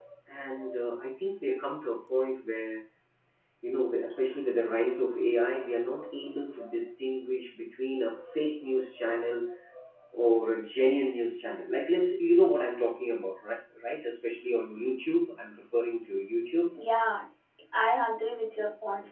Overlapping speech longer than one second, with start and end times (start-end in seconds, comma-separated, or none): none